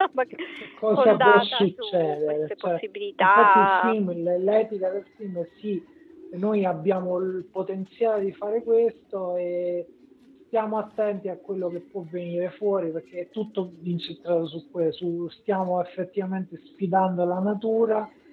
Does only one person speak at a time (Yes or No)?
No